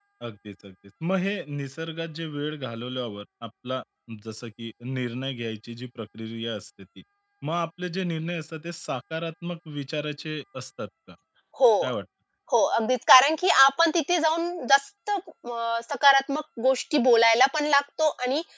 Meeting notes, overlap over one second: none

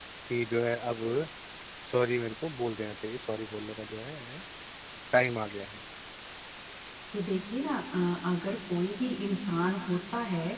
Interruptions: none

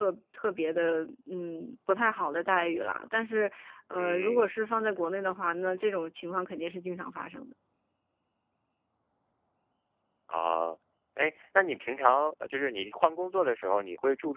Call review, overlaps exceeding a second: none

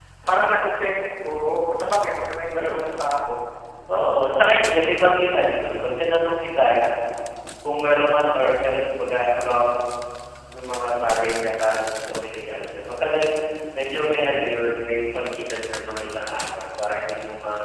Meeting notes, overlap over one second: none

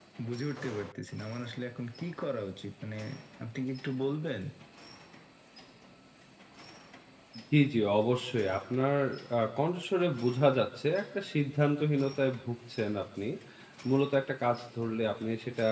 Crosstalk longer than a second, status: none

